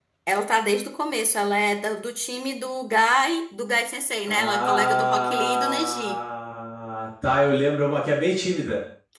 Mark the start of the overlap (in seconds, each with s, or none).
4.3 s